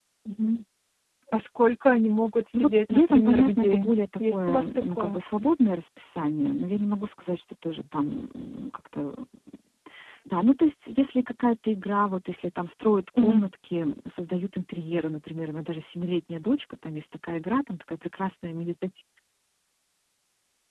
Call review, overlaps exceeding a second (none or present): present